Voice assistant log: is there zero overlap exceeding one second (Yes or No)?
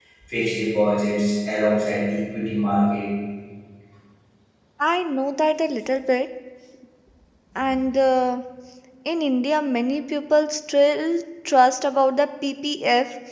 Yes